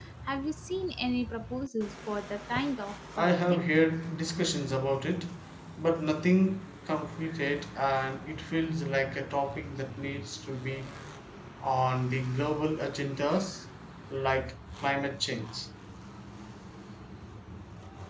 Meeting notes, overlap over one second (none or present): none